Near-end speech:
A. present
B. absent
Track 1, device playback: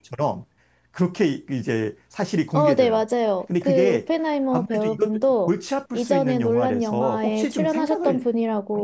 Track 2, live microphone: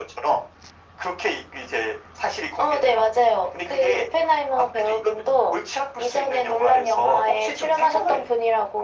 B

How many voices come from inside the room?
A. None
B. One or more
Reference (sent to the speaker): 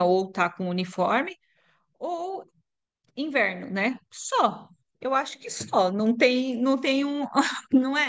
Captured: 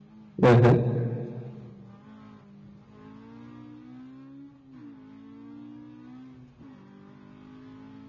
B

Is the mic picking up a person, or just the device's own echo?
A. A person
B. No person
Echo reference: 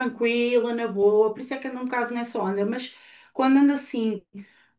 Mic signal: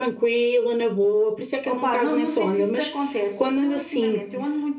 A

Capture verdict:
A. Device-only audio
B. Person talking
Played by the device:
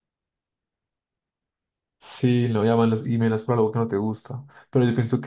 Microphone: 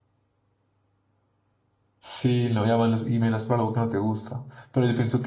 A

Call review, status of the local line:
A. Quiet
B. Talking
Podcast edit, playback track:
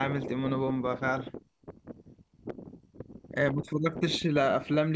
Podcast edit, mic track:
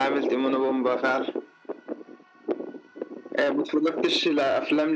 A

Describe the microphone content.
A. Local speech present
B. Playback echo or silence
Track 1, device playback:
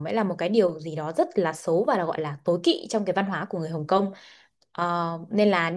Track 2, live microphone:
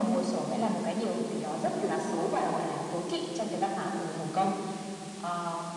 B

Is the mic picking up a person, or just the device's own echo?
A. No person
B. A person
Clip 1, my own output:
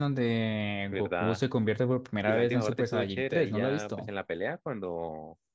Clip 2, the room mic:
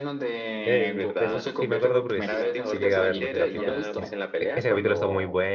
B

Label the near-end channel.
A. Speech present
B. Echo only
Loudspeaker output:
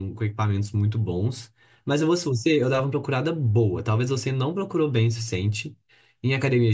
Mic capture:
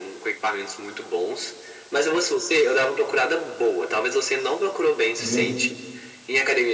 A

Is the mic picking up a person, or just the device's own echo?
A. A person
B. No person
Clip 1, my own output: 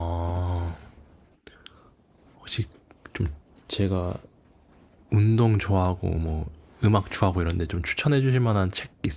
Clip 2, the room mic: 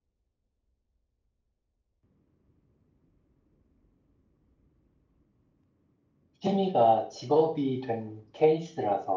A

